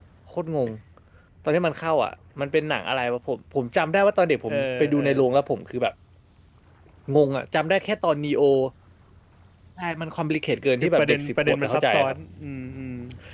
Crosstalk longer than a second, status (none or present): present